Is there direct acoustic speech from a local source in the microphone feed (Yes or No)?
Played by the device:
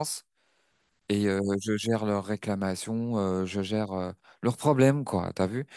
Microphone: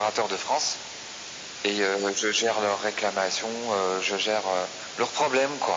No